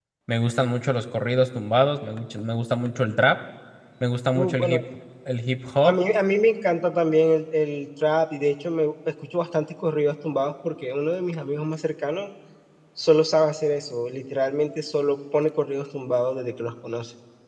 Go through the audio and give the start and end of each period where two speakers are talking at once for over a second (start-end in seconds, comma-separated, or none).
none